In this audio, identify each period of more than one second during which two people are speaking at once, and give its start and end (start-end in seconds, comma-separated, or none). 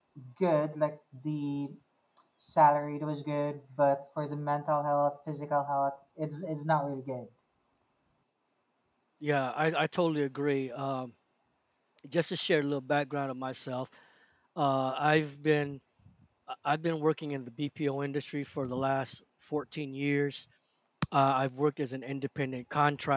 none